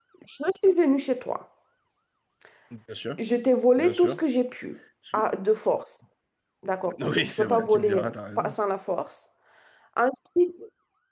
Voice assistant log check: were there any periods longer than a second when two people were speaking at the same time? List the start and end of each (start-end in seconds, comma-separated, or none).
7.0-8.5